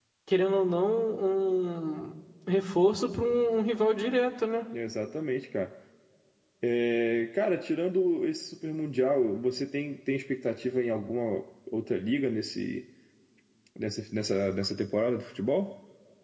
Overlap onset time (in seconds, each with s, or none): none